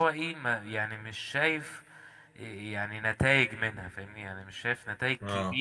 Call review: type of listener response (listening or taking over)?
listening